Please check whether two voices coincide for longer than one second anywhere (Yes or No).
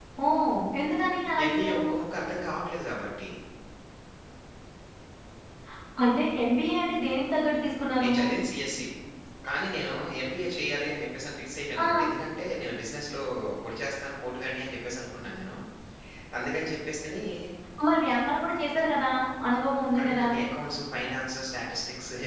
No